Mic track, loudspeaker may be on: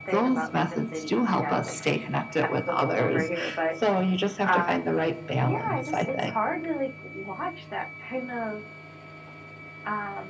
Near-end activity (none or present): present